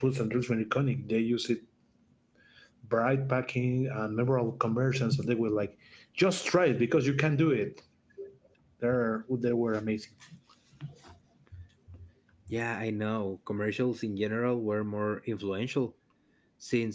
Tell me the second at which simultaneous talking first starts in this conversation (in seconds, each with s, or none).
none